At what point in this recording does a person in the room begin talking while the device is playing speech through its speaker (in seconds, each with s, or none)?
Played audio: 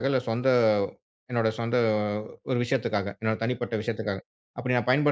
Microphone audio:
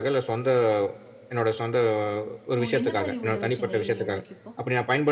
2.6 s